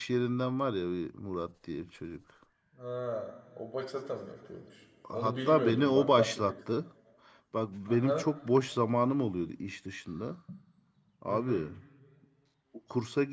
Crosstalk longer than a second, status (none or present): present